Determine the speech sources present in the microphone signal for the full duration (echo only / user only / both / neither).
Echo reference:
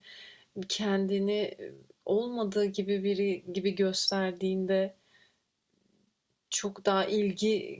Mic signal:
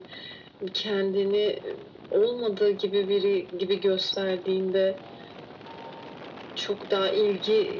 echo only